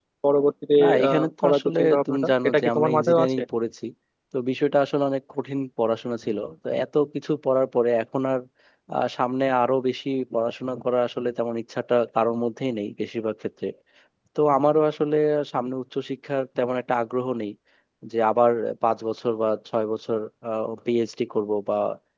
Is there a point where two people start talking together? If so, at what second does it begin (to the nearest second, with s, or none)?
1 s